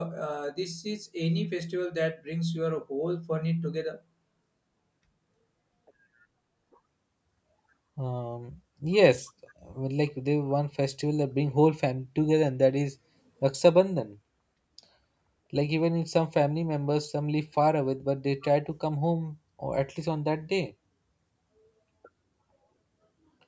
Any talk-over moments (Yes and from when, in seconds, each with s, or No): No